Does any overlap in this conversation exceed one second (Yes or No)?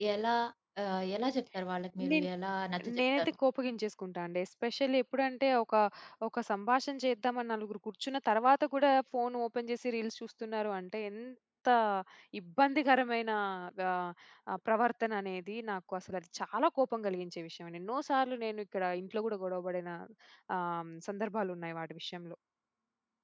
No